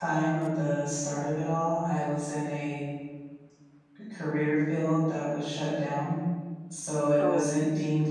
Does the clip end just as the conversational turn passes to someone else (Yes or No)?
No